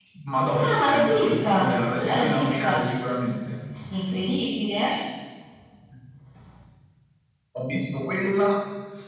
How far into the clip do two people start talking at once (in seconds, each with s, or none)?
0.6 s